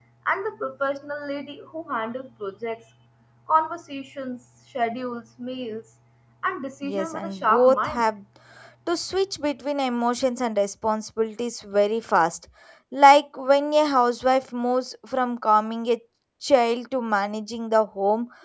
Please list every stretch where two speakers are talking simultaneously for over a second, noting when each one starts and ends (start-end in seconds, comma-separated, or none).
6.8-8.0